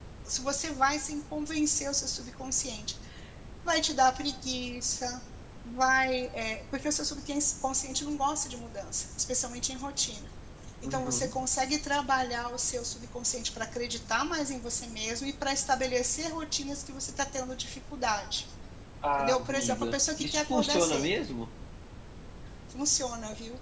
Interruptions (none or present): present